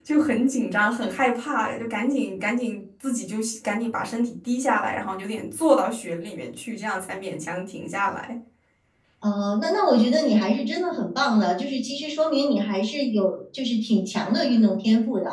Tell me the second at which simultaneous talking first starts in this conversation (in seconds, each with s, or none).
none